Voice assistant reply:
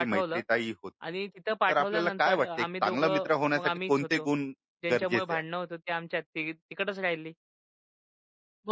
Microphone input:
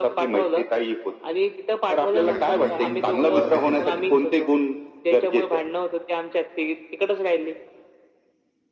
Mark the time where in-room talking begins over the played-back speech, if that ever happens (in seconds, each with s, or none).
2.1 s